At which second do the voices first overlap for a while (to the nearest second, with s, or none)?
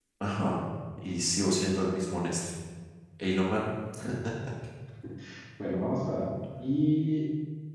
none